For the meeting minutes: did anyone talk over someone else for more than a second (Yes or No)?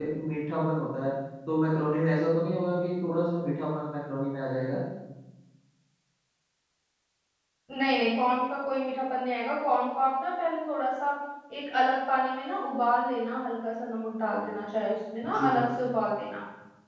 No